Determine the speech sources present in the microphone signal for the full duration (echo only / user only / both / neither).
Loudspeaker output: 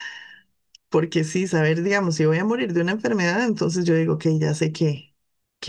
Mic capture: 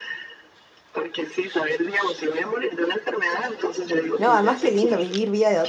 both